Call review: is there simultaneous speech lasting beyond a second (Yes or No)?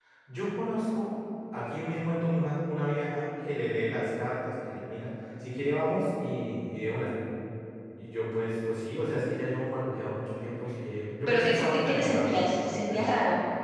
Yes